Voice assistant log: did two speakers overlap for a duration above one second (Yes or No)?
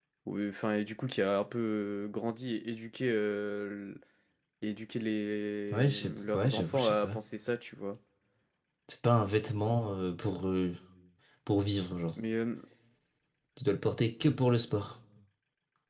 Yes